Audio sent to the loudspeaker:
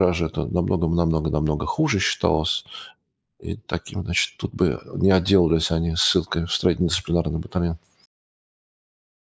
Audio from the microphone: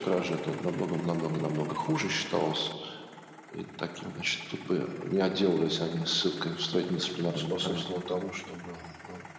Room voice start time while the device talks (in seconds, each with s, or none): 7.1 s